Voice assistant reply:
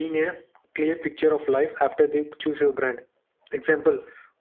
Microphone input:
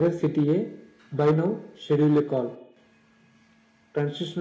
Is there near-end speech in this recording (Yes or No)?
Yes